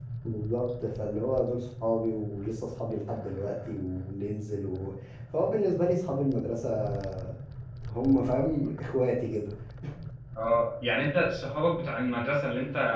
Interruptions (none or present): none